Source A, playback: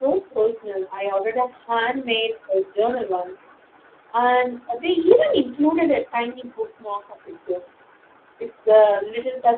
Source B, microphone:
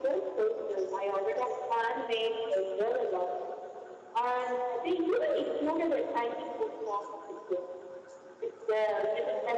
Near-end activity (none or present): none